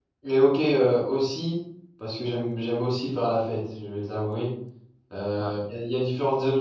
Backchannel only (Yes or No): Yes